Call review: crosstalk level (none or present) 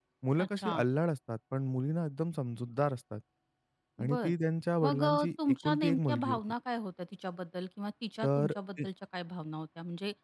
present